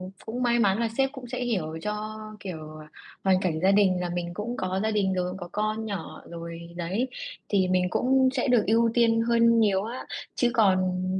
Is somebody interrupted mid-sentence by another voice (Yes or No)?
No